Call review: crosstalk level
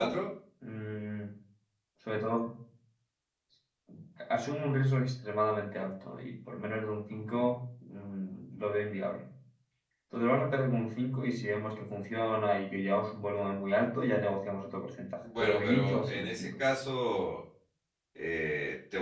present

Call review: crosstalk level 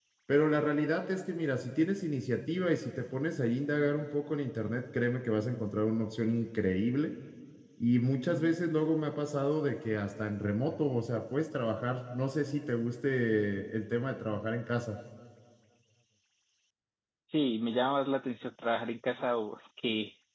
none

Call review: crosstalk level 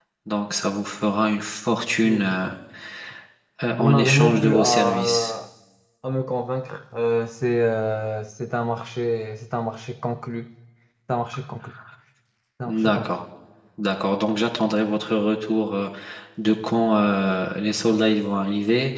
present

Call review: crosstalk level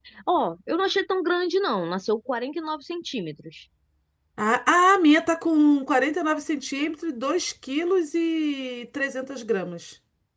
none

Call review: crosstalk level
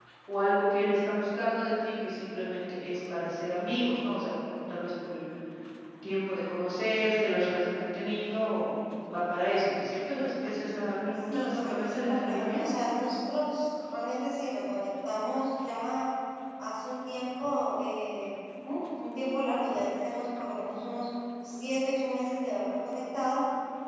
present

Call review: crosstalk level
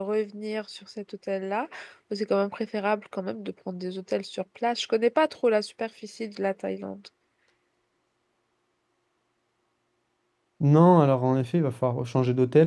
none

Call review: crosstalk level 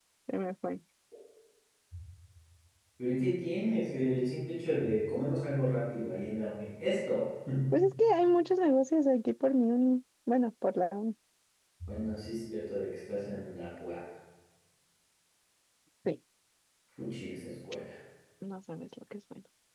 none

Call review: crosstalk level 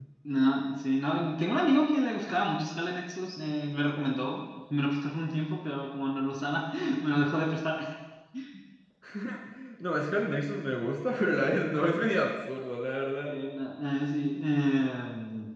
none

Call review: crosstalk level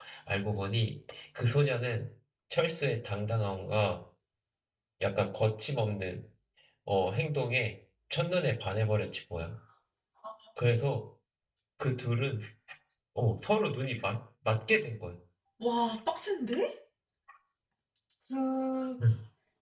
none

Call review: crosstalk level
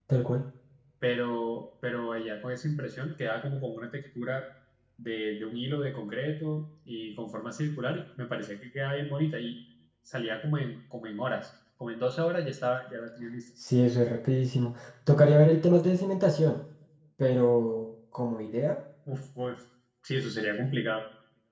none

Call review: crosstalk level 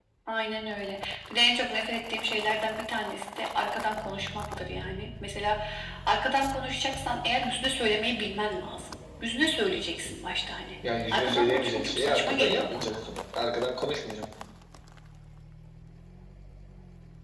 present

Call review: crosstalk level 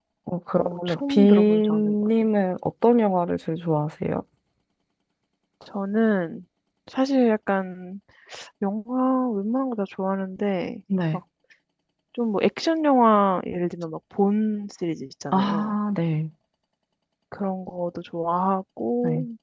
present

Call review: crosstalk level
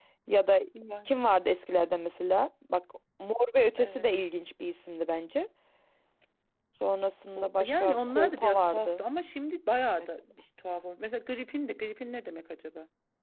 present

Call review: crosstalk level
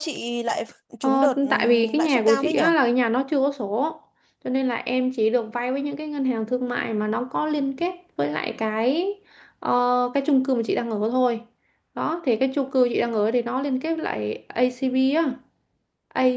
present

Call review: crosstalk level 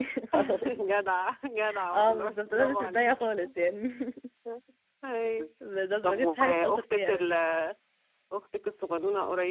present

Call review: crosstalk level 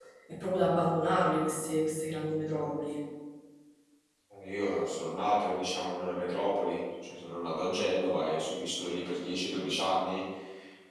none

